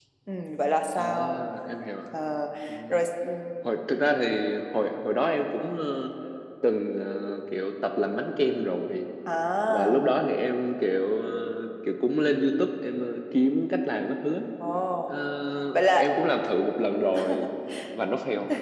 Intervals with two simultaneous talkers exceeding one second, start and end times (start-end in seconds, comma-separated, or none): none